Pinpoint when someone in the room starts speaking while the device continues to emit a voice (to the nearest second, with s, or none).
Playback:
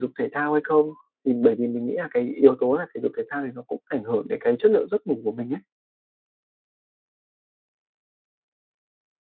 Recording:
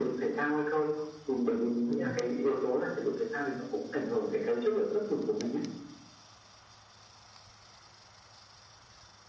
2 s